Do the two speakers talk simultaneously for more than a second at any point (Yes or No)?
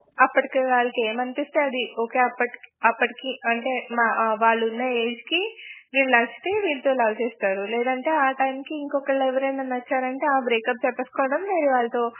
No